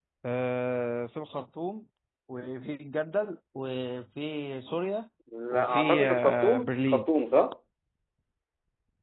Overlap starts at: 5.5 s

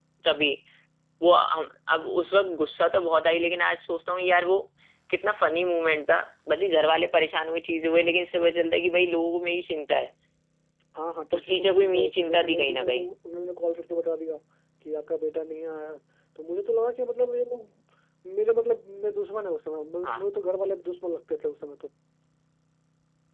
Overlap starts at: 11.4 s

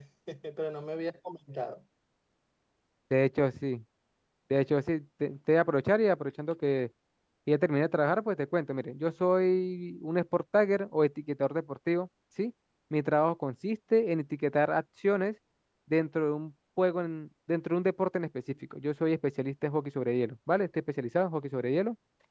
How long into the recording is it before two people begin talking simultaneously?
none

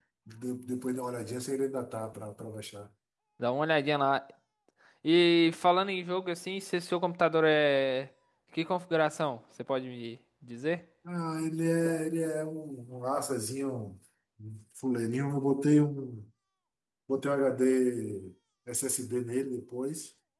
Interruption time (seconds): none

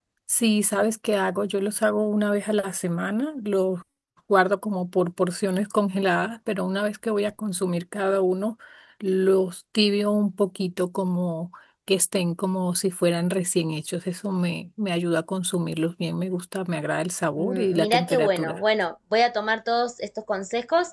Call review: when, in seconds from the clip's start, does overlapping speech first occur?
17.4 s

